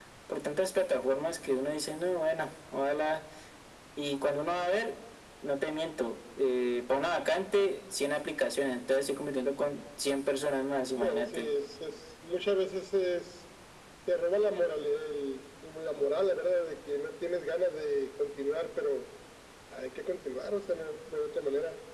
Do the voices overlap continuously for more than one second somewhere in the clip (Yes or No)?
No